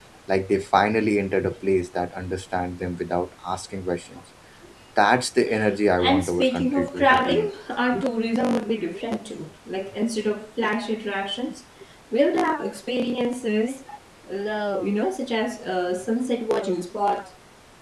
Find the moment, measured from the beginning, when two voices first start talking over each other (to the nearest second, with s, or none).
6 s